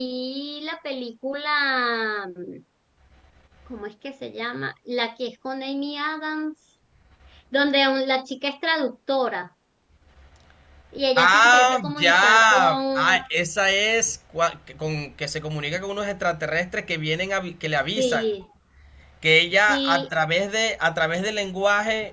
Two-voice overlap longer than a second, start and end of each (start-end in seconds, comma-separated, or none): 11.2-13.2